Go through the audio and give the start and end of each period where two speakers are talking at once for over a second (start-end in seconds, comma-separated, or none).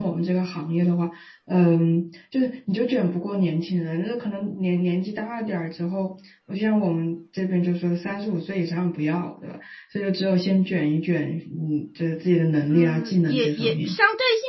12.7-14.0